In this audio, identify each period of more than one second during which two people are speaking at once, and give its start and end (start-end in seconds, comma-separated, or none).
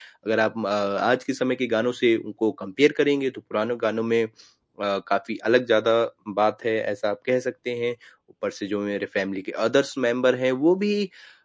none